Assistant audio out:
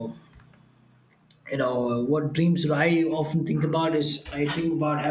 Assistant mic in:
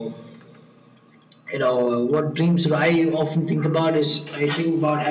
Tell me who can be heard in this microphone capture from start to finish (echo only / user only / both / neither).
echo only